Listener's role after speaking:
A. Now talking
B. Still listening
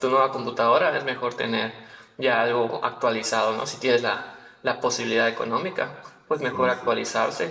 B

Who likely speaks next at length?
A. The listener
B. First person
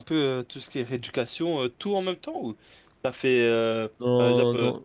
B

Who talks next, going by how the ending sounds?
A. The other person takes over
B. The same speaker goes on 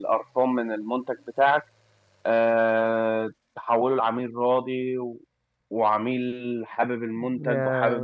B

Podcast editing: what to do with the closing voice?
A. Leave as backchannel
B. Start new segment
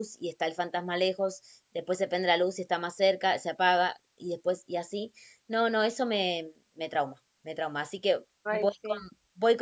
A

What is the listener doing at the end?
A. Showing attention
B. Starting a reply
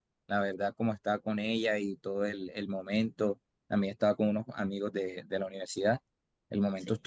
A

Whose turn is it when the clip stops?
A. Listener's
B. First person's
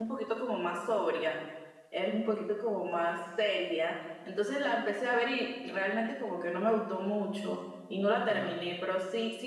B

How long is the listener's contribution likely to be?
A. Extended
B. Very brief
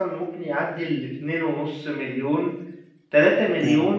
B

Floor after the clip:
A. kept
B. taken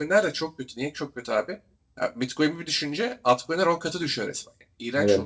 B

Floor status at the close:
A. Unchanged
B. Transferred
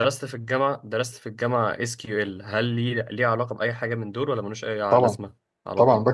B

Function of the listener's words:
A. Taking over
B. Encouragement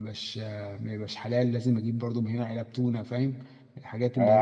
A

